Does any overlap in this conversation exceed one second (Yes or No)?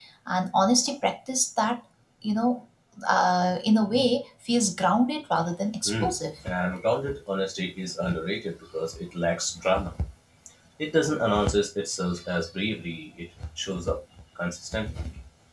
No